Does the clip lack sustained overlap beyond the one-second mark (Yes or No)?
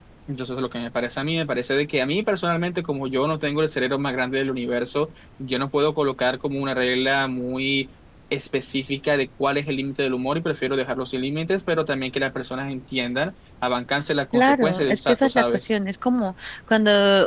No